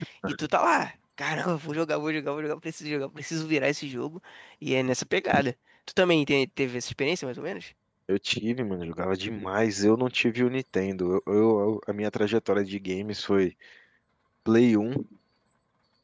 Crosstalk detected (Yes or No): No